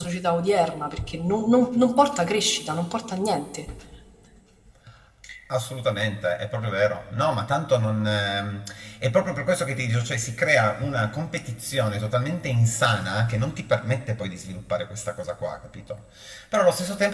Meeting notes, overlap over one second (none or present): none